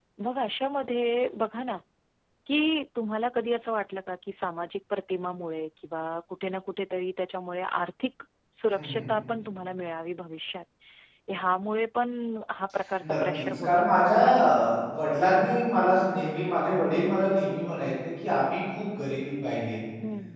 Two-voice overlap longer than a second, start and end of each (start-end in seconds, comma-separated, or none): 13.0-14.7